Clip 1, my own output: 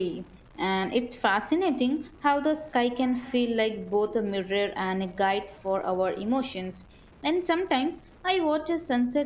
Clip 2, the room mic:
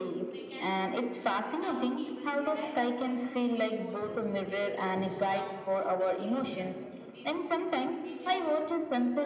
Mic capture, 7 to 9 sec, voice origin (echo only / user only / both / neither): both